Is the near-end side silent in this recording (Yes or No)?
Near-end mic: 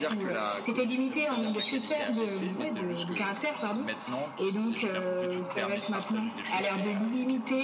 No